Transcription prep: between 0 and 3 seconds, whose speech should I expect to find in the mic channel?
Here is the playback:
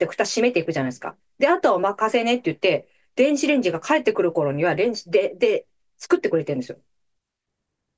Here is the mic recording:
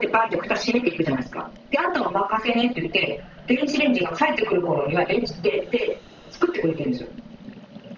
echo only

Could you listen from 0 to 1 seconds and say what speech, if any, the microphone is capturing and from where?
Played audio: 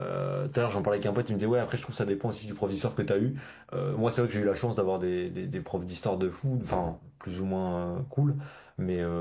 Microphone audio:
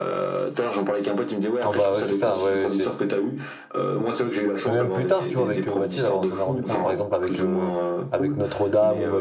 echo only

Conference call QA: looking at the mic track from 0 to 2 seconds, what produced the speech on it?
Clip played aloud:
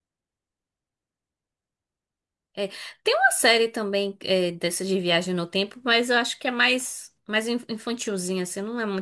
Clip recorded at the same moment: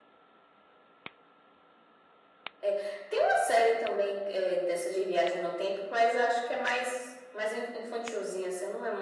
neither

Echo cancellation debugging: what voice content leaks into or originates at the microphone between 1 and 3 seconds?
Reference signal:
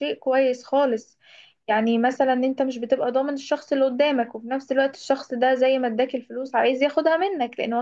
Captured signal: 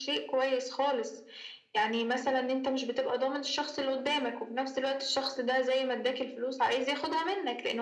echo only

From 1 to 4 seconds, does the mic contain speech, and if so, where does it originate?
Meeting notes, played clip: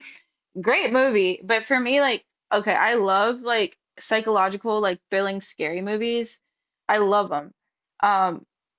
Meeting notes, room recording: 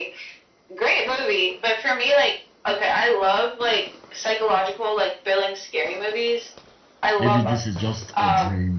echo only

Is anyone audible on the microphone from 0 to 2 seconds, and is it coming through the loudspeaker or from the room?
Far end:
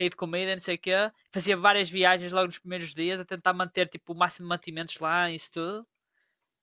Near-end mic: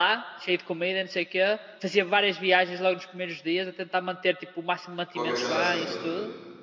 echo only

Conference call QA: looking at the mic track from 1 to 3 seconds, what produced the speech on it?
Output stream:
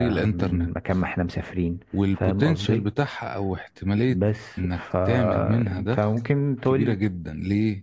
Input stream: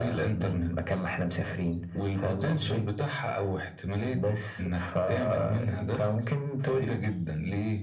echo only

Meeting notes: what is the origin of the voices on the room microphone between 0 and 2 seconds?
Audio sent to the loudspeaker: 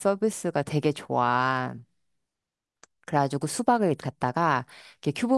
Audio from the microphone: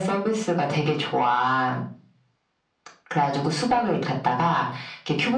echo only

